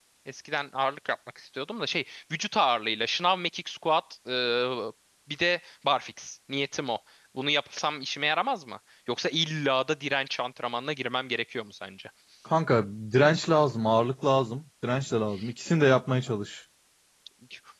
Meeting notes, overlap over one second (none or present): none